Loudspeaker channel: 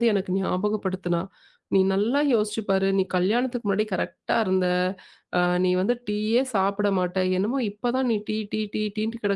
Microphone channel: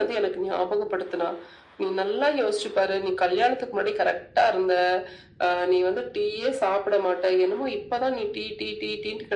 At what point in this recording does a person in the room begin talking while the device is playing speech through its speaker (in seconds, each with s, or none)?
none